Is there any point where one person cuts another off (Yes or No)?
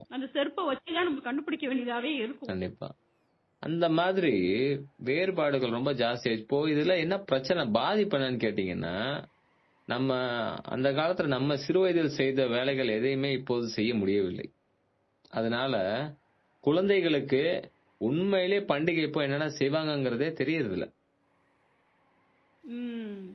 No